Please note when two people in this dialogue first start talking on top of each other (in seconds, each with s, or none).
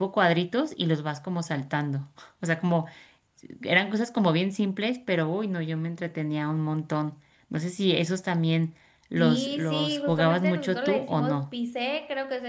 9.2 s